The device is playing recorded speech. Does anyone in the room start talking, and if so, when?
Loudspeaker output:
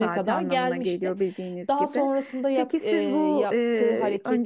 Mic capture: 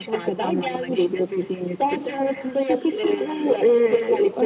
none

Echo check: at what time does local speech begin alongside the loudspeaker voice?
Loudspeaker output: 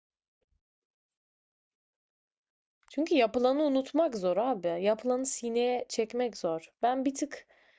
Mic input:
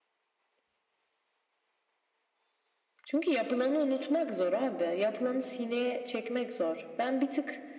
none

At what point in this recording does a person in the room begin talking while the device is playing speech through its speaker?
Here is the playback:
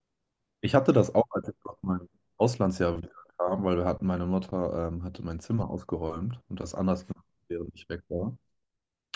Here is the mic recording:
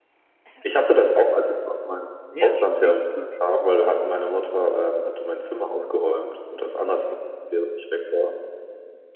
2.3 s

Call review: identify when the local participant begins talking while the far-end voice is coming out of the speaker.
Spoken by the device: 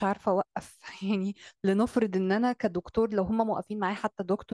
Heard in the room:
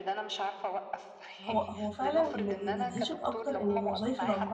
1.5 s

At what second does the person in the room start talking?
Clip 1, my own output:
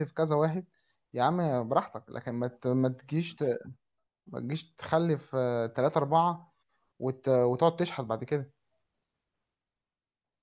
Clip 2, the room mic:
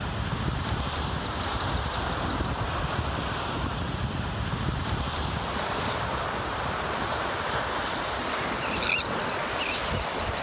none

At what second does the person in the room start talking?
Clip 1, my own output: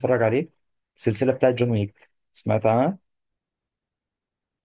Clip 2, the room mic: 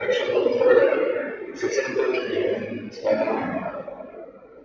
none

